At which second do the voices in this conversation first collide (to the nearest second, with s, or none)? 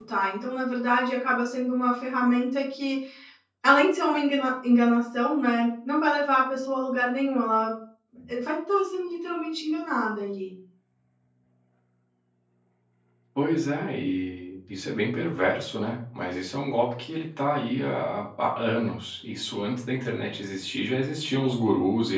none